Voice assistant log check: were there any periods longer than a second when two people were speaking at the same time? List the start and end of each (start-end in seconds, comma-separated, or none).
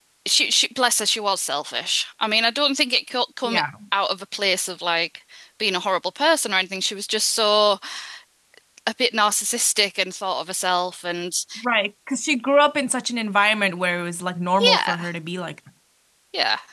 none